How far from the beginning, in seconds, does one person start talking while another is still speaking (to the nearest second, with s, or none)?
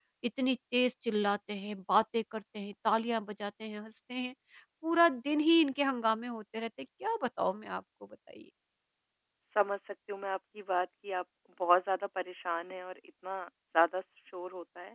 none